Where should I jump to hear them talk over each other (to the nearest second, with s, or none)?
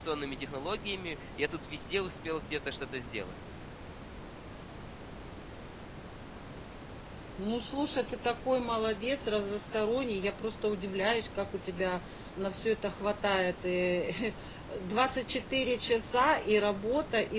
none